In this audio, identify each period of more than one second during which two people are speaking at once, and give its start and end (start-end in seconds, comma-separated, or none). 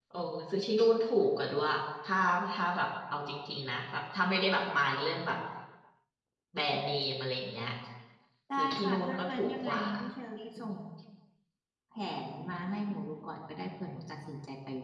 8.6-9.8